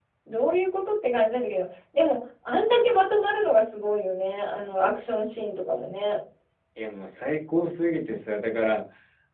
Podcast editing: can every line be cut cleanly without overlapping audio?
Yes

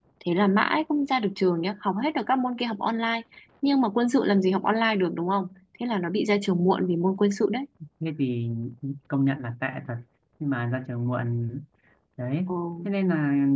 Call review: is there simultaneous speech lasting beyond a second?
No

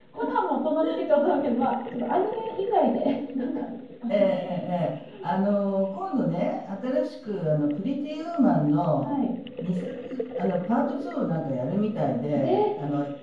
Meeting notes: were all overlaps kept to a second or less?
Yes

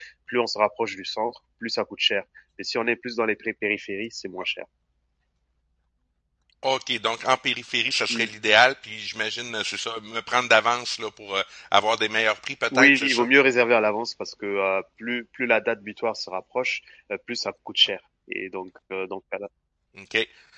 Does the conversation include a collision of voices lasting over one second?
No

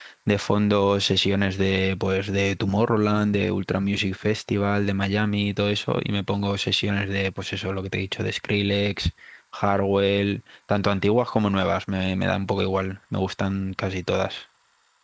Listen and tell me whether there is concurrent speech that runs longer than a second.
No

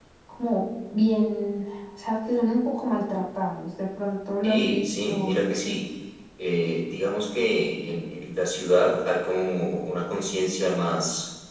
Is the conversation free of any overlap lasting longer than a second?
No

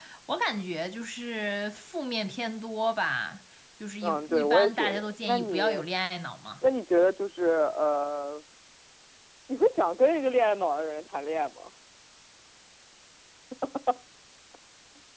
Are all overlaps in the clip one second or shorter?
No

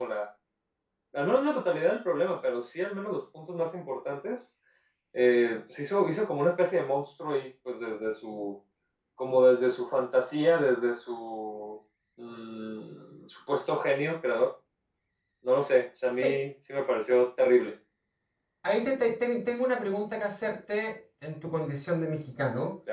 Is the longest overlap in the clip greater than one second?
No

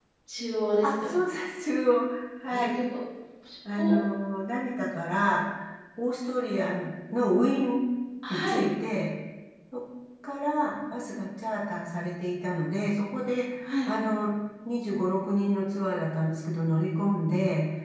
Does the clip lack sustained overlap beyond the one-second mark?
Yes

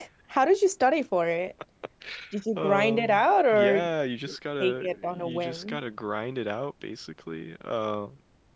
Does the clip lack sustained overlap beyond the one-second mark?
No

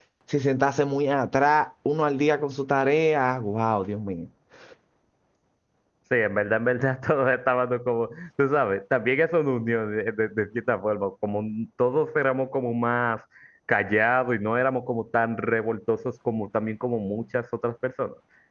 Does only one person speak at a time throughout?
Yes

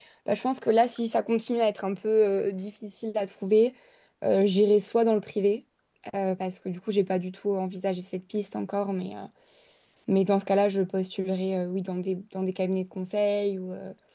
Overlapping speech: No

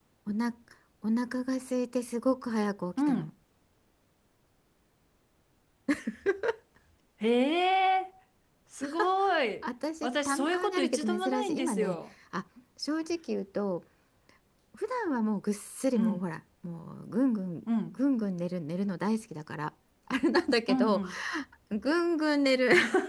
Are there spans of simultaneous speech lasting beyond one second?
Yes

